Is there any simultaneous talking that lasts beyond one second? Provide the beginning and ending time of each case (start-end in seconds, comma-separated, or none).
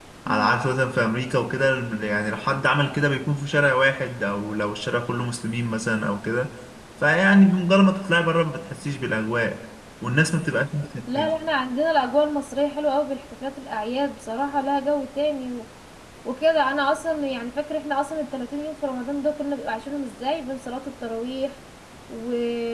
none